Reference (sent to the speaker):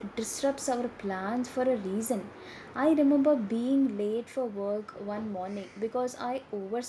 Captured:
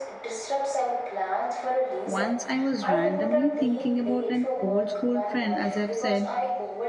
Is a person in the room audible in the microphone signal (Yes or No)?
Yes